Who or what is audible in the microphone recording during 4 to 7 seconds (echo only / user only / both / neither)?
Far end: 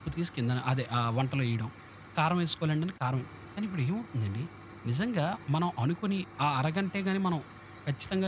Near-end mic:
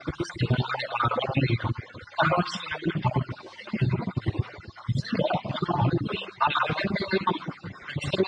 echo only